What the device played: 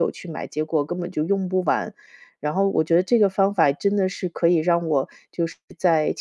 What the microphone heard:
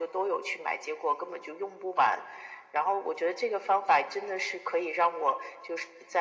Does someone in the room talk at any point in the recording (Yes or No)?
No